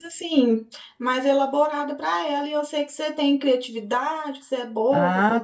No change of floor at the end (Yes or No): No